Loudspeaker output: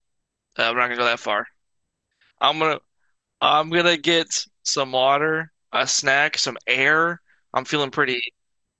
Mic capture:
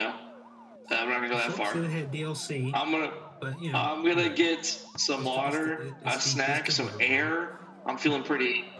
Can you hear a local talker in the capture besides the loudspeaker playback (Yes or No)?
Yes